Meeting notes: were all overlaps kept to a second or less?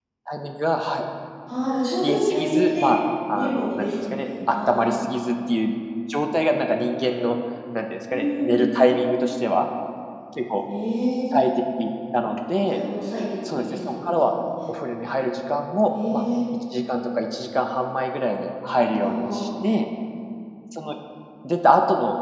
No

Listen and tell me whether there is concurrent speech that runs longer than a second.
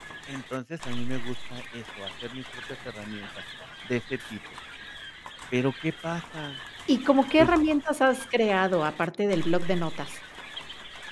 No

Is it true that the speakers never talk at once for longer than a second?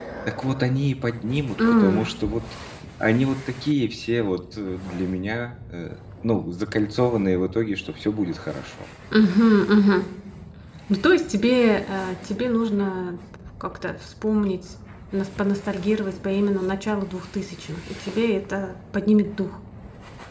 Yes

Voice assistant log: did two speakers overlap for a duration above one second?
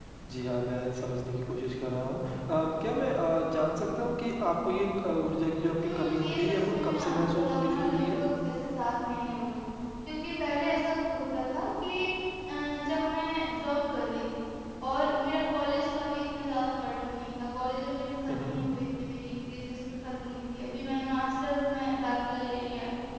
Yes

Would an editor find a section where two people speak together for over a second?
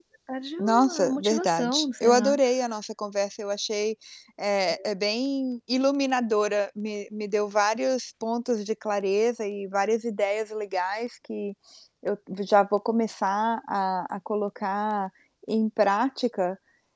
Yes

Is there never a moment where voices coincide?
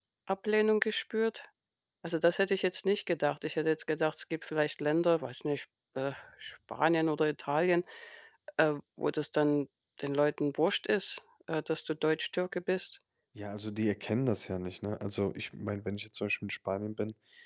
Yes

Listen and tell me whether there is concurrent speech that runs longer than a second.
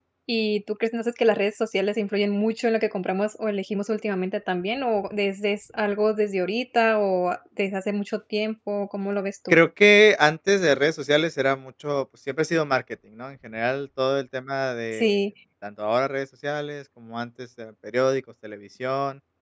No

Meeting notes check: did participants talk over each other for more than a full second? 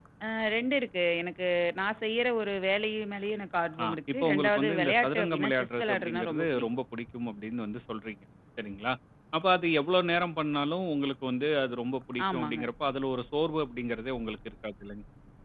Yes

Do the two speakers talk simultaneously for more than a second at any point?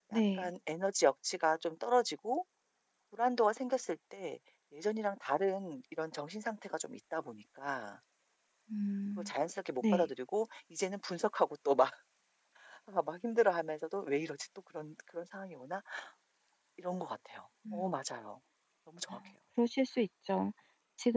No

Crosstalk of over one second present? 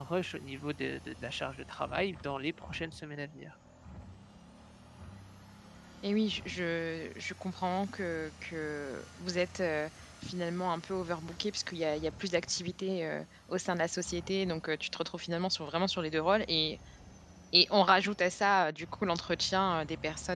No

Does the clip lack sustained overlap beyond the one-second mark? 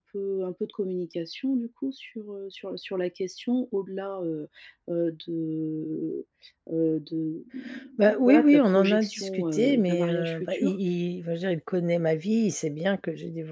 No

